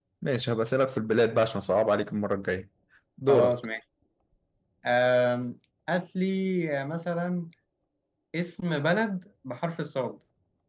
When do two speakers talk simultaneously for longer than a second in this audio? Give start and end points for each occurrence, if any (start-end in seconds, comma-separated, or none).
none